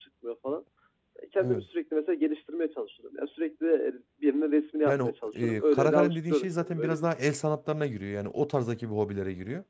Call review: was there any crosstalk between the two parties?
Yes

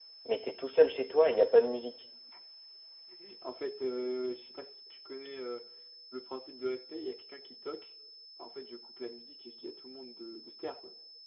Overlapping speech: No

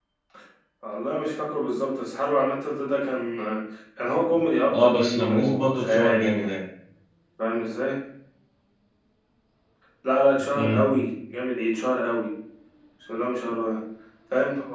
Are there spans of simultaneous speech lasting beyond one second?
Yes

